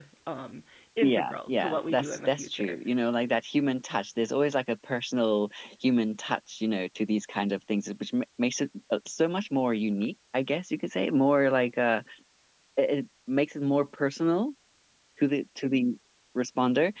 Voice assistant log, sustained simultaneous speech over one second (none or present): present